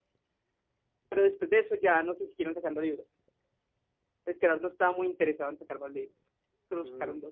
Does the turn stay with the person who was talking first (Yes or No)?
No